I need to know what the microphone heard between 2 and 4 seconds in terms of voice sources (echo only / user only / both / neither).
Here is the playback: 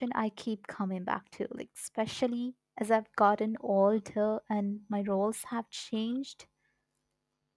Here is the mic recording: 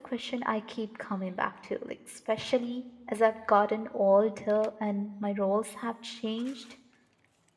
echo only